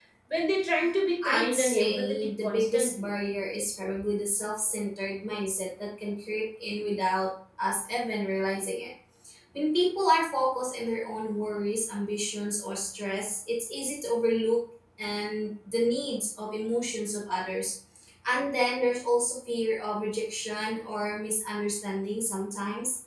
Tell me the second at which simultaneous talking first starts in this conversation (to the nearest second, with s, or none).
1 s